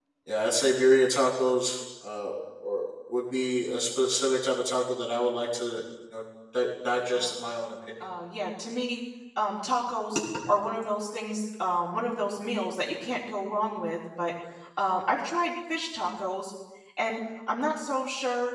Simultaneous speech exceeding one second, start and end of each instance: none

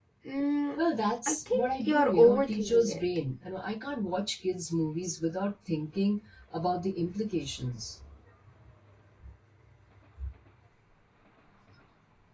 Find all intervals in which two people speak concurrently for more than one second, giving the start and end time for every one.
1.3-3.0

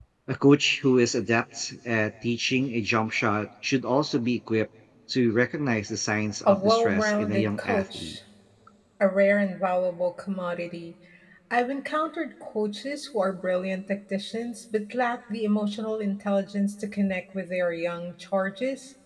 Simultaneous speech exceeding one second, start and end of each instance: 6.5-8.2

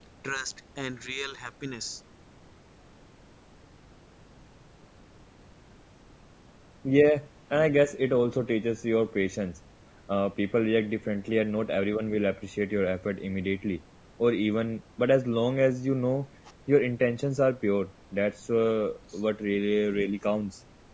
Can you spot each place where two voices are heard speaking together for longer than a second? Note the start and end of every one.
none

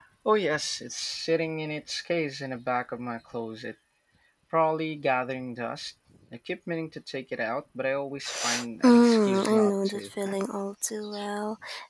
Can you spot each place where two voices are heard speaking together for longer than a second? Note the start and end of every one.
8.8-10.1

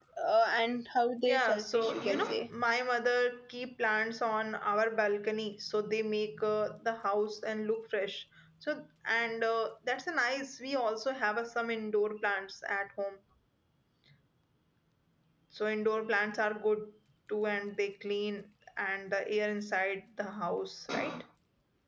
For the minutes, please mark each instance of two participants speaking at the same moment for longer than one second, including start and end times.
1.2-2.4

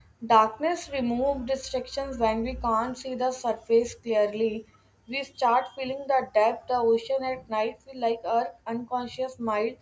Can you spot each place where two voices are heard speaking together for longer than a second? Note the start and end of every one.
none

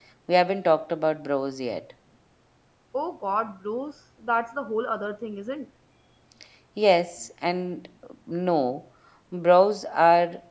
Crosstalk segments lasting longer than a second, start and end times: none

